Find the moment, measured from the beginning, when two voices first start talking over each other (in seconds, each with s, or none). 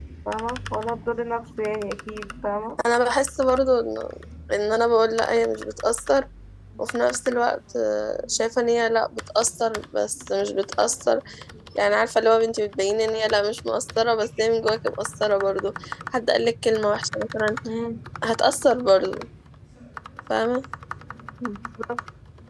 none